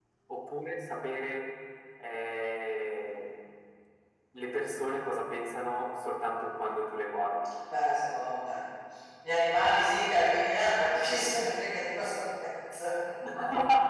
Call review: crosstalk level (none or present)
none